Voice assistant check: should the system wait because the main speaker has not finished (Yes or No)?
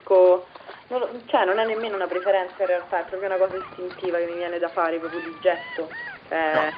Yes